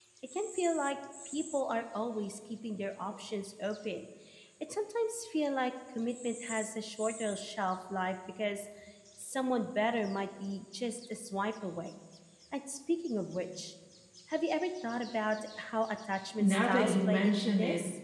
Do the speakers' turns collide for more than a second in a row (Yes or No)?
Yes